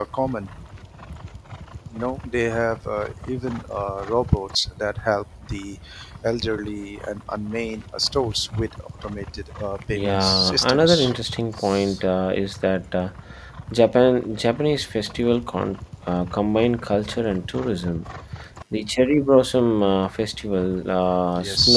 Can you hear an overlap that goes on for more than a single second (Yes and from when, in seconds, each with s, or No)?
Yes, from 9.9 s